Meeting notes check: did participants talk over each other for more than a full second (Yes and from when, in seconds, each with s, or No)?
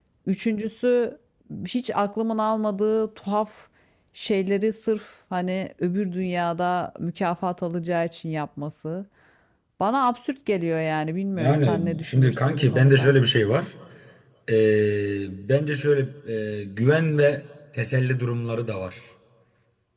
Yes, from 11.3 s